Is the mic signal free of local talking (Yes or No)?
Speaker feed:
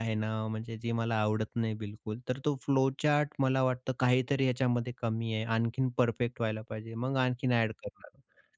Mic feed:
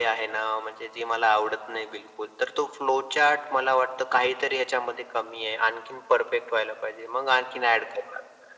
Yes